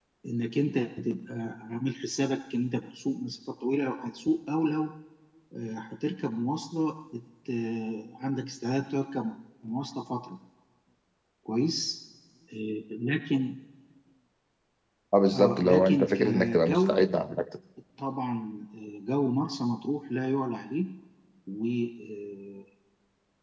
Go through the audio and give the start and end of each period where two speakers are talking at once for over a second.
15.3-17.0

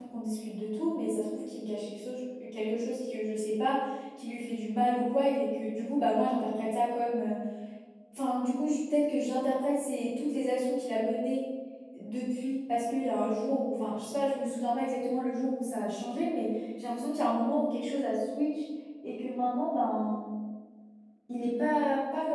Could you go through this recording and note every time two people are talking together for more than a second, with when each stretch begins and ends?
none

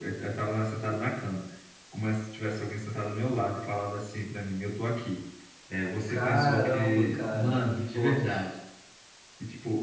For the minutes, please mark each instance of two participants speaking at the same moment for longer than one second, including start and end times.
6.1-8.4

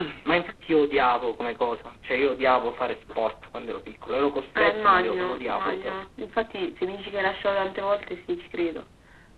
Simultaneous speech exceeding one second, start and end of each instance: 4.5-6.0

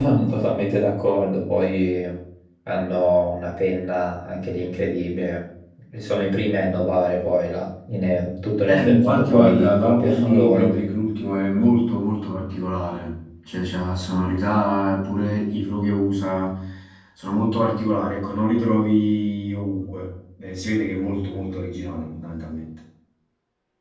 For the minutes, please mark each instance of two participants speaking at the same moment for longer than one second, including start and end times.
8.7-11.0

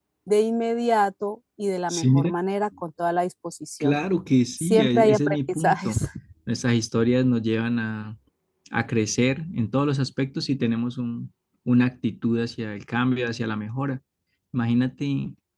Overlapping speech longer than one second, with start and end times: 4.6-5.9

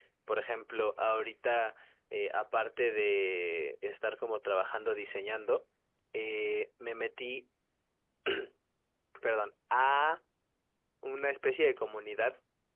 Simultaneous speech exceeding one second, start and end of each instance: none

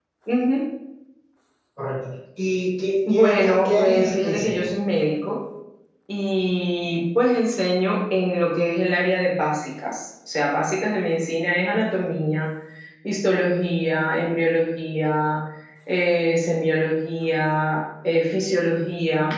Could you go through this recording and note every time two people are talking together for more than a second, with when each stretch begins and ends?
3.1-4.7

